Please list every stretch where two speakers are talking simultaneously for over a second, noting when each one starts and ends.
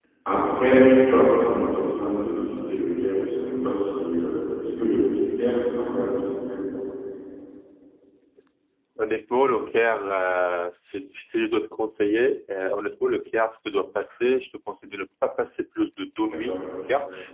none

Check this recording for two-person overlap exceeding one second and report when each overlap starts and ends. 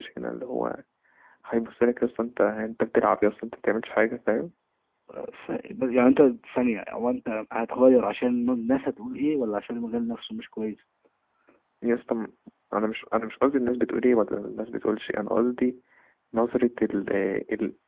none

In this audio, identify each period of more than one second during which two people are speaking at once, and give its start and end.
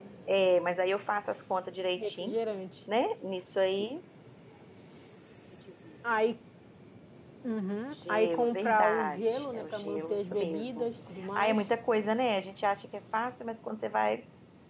8.1-10.9

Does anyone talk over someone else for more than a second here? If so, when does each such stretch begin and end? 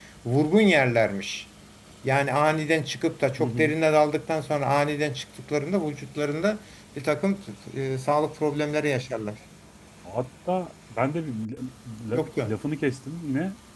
none

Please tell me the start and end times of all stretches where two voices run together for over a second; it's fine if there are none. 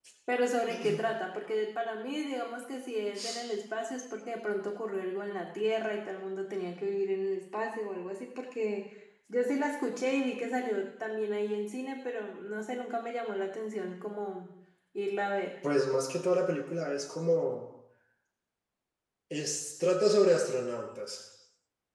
none

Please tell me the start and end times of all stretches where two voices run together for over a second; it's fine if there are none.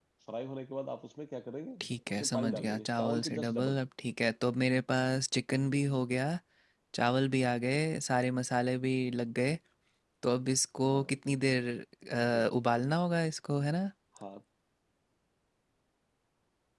2.1-3.8

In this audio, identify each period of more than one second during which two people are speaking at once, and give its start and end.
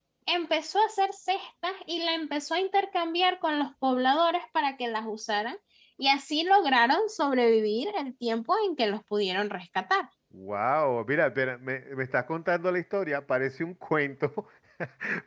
none

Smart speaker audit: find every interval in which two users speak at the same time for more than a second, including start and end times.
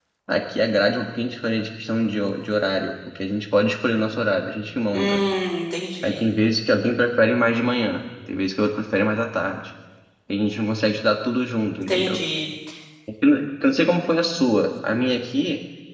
none

